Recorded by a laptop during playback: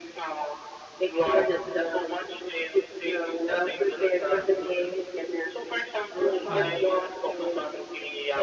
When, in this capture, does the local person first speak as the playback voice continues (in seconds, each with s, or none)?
6.5 s